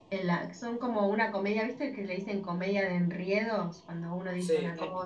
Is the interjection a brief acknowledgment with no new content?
Yes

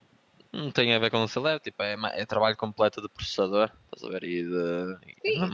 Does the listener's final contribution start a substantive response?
Yes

